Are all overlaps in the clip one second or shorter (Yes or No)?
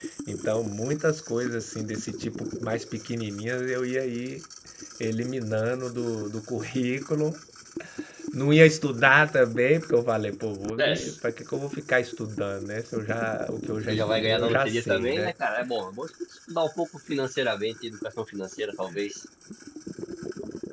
No